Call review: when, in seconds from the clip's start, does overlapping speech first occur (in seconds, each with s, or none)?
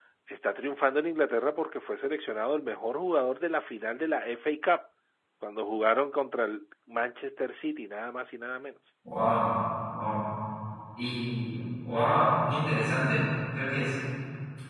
none